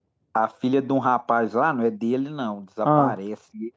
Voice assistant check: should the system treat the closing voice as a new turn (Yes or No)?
No